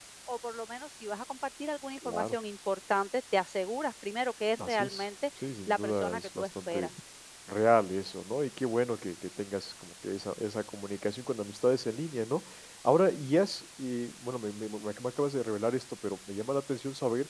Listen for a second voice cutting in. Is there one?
Yes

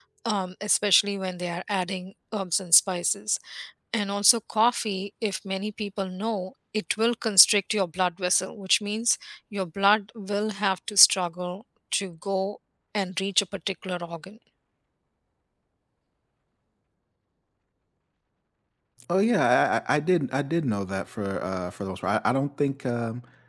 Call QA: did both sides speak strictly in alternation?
Yes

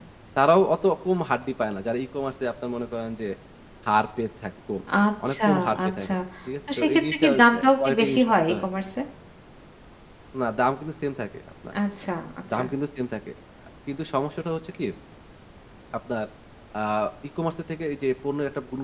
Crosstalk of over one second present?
Yes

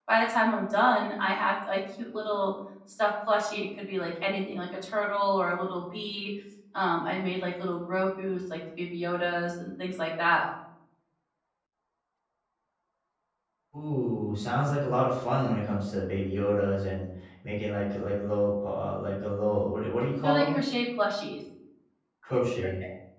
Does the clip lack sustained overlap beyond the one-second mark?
Yes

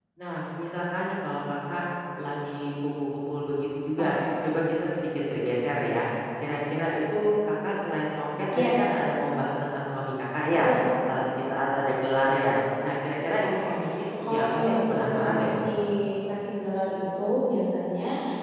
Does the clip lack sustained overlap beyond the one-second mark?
No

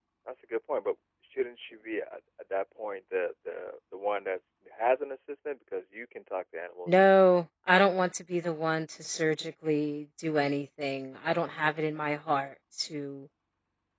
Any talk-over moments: No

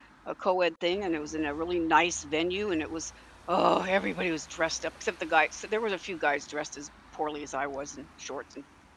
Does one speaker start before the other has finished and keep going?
No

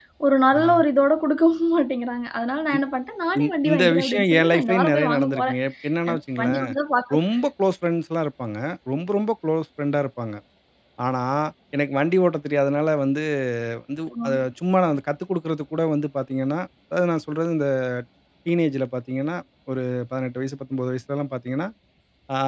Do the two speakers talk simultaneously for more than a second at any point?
Yes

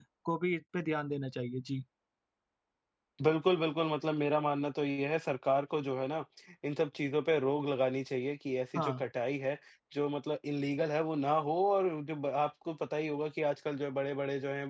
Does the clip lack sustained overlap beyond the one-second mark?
Yes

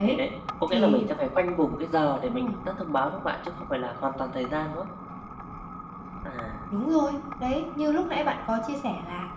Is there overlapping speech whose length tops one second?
No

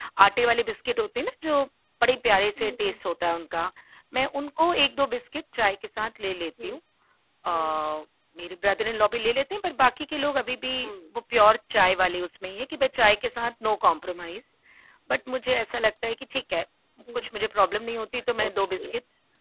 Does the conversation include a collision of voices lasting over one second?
No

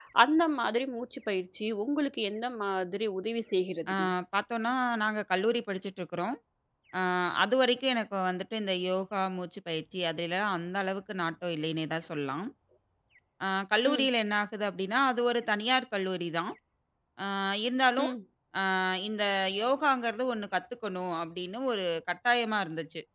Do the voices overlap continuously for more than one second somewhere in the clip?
No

